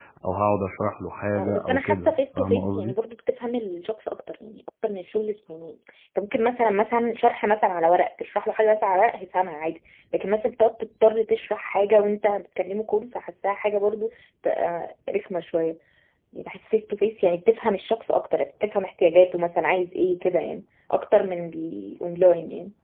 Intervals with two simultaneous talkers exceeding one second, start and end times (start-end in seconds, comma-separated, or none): 1.4-2.9